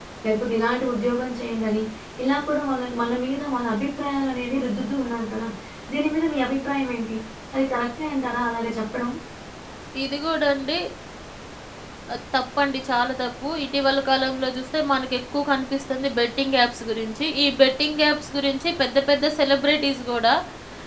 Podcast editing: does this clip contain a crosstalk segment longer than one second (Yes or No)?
No